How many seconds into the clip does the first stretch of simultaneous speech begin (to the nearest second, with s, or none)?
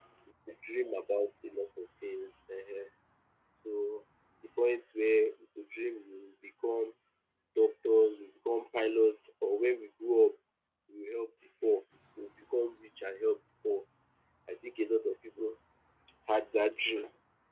none